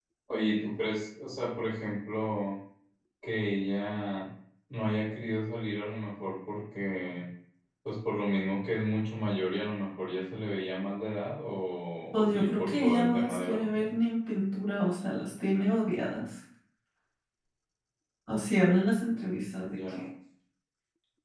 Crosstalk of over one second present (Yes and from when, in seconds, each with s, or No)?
Yes, from 12.1 s